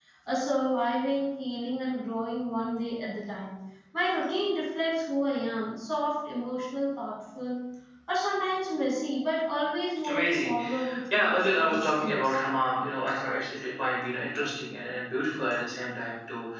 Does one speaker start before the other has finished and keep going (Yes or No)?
Yes